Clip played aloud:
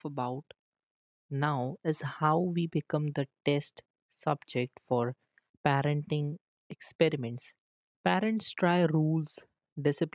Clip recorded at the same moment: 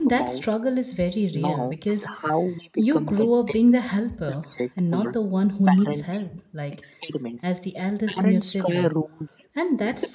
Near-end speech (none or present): present